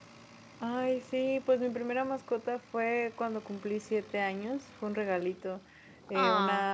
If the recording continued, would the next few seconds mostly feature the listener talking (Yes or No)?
No